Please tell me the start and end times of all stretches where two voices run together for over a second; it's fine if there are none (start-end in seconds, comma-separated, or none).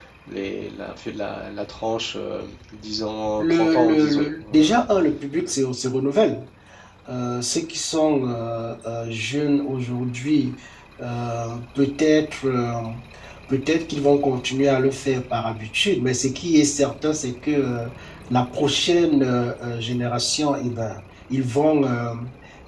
3.4-4.8